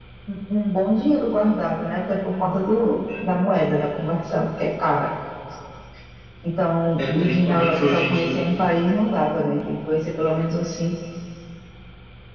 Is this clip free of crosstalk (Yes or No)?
No